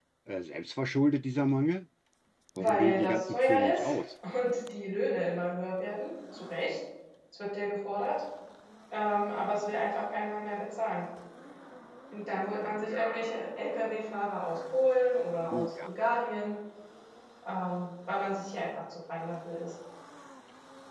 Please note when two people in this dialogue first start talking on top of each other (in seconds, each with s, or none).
2.6 s